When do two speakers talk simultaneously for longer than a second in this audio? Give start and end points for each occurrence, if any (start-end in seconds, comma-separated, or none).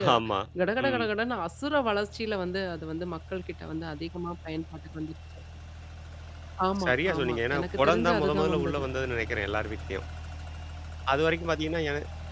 6.8-8.8